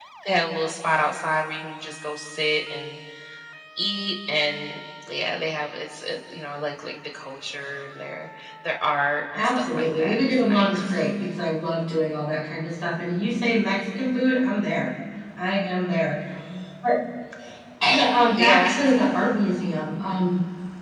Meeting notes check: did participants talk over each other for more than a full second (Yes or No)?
Yes